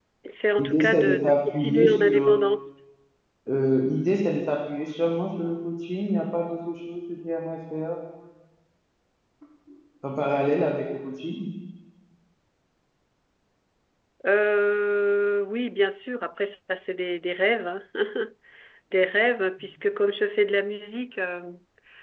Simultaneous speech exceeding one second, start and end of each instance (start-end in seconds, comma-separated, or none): 0.6-2.4